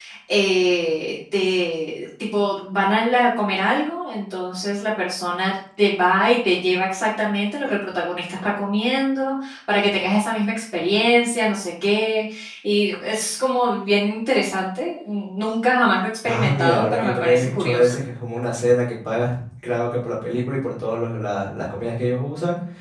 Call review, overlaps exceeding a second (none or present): present